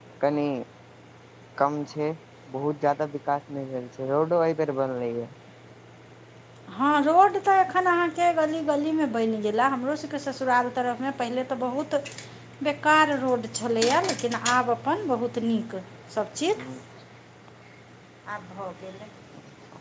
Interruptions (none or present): none